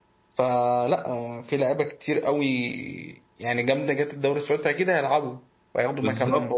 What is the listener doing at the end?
taking over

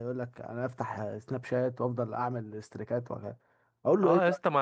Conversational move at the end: taking over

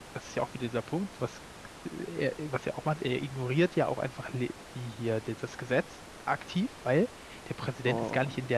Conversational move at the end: listening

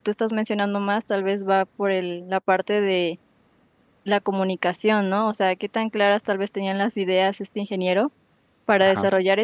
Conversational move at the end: listening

